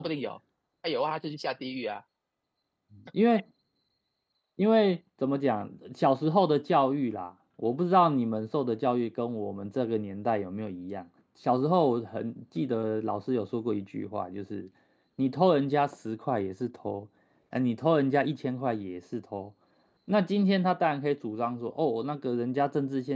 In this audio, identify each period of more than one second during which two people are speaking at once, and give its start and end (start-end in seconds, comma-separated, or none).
none